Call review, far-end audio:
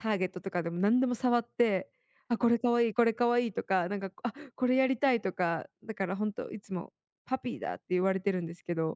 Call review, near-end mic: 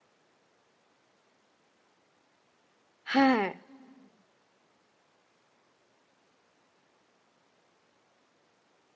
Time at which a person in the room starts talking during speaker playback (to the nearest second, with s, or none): 3 s